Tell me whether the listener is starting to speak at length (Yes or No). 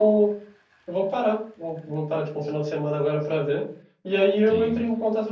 No